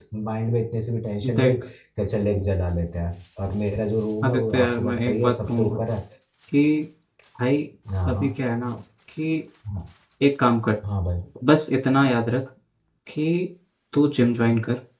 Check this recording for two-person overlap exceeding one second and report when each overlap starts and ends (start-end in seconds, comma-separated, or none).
4.2-5.8